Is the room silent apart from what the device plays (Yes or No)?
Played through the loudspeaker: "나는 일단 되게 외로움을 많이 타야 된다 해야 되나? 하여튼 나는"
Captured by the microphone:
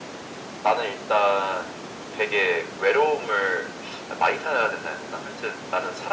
Yes